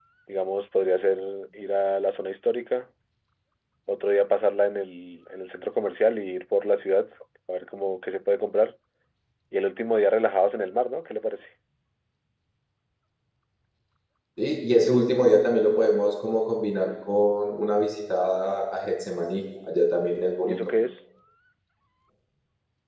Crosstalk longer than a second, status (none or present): none